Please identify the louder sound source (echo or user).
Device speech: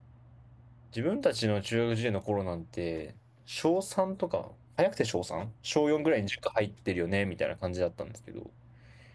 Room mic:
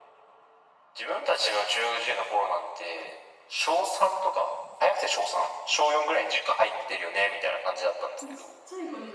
echo